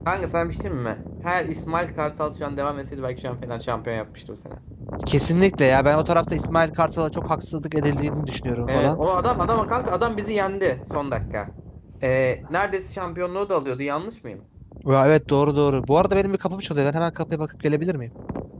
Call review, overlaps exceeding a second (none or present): none